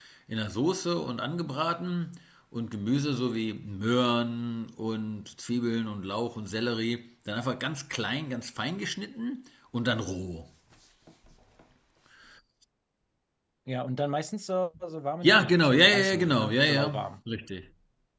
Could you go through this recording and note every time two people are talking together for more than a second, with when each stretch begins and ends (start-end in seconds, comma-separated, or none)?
15.2-16.8